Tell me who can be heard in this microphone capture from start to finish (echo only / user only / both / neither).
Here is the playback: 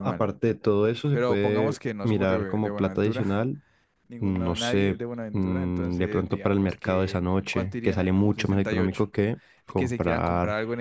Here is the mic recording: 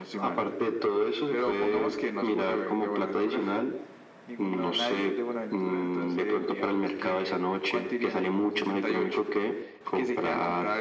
echo only